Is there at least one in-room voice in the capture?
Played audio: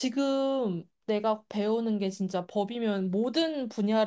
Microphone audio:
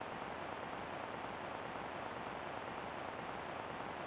No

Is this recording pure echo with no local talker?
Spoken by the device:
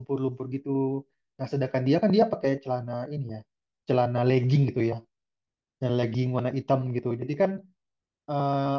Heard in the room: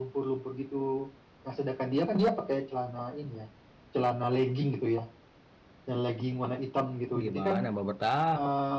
No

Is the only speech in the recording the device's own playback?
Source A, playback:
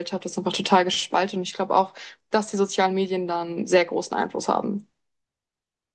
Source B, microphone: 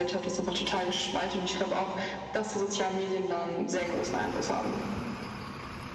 Yes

